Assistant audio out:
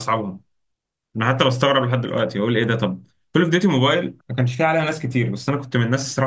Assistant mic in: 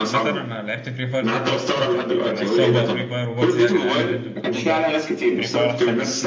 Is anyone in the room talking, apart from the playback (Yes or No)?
Yes